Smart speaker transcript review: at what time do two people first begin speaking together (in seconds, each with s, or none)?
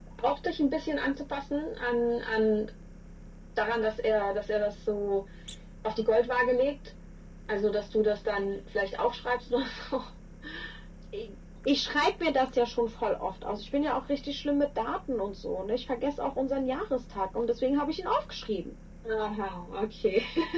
none